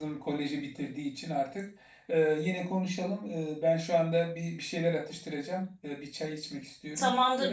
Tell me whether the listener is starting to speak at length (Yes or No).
Yes